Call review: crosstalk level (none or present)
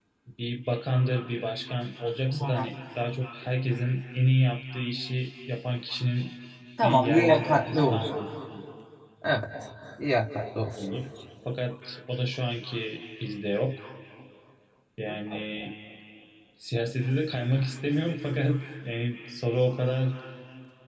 present